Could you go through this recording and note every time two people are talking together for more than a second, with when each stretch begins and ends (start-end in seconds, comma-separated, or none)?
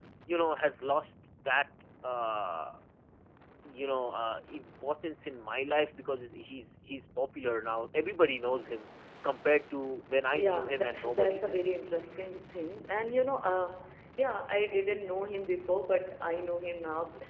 10.3-11.6